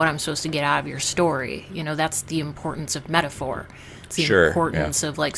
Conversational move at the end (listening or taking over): listening